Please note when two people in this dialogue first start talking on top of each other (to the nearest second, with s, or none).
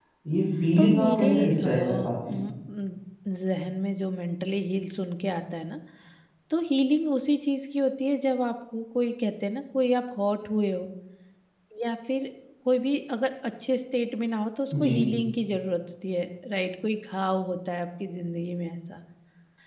1 s